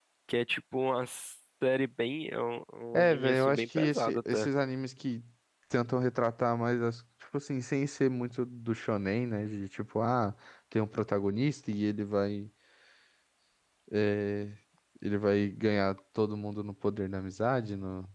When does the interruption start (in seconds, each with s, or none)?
2.9 s